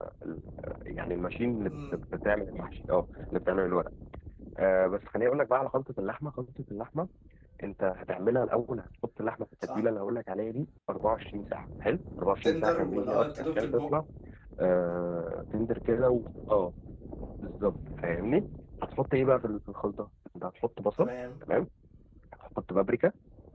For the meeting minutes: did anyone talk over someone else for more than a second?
Yes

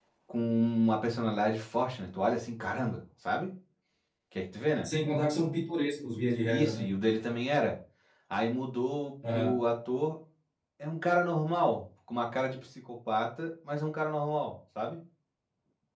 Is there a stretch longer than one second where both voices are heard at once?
No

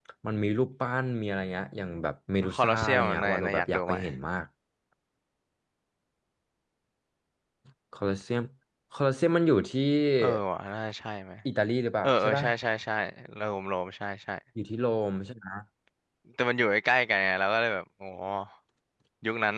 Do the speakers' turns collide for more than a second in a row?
Yes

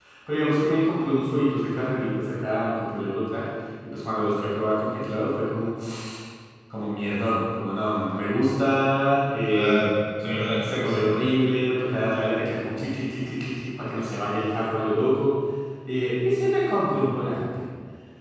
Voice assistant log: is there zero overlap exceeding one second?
Yes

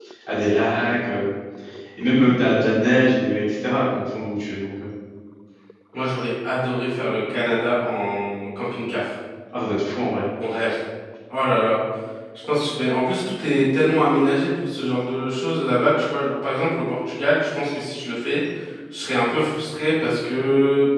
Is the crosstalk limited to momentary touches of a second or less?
Yes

